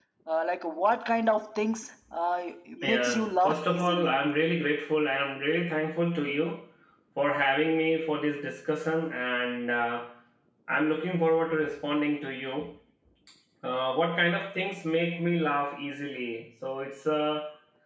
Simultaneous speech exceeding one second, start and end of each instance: 2.8-4.1

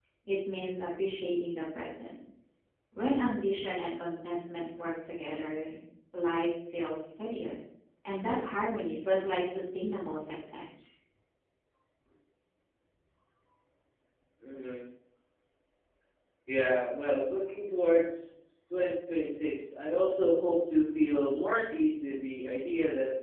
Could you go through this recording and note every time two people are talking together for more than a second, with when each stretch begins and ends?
none

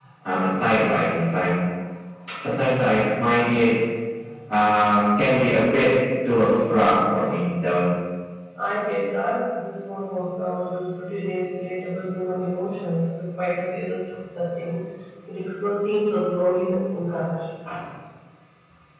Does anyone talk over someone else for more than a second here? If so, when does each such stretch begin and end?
none

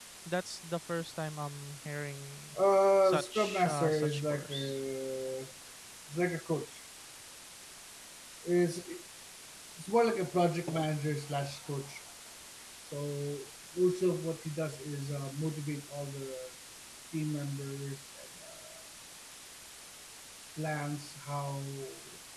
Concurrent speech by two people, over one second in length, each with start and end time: 3.0-4.8

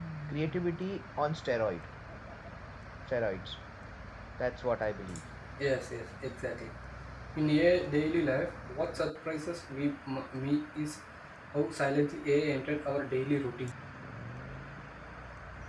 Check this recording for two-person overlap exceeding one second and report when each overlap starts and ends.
none

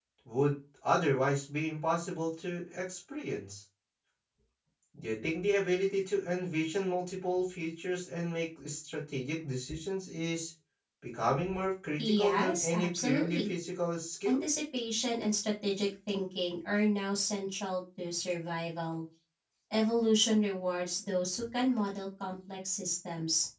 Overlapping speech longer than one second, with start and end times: 12.0-13.5

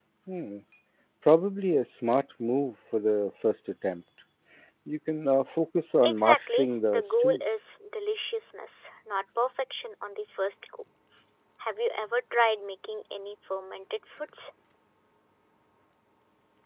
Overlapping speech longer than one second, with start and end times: 6.0-7.6

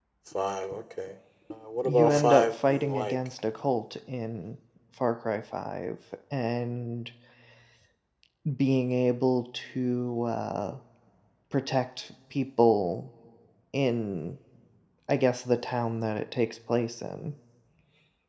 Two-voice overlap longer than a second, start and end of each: 1.9-3.1

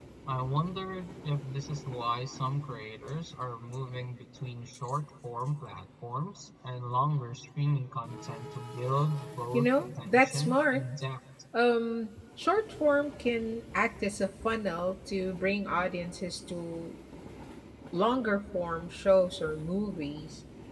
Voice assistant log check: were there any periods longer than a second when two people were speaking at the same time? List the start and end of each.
9.5-10.8

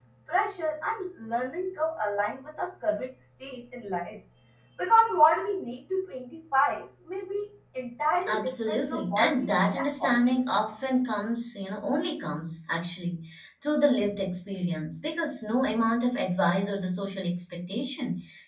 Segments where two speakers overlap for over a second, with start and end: 8.3-10.3

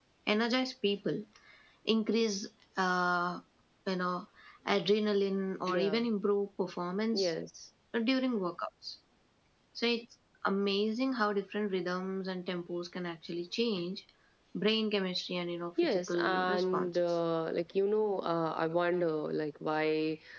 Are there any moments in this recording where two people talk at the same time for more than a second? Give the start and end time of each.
15.8-17.2

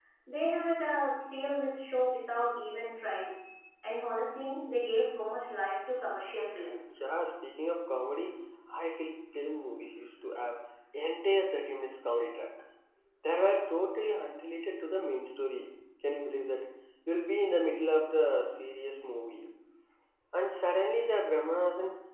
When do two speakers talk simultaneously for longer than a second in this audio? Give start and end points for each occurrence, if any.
none

